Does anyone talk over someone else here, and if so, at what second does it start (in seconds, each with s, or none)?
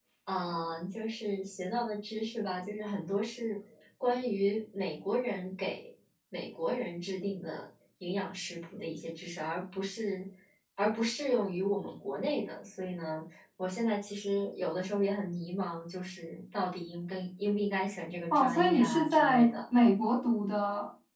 18.3 s